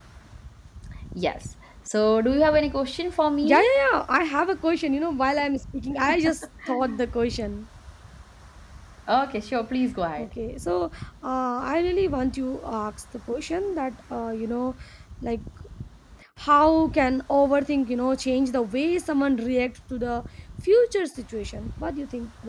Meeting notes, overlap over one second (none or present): none